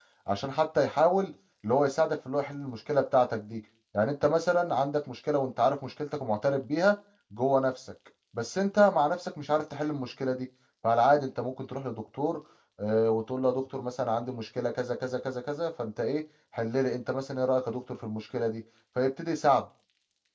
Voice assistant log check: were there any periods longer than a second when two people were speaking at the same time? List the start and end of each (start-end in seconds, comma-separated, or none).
none